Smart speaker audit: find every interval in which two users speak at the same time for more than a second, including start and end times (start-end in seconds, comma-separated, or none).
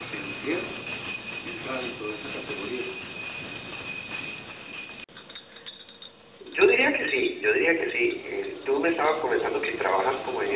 none